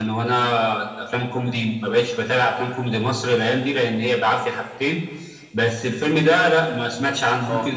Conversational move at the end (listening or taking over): listening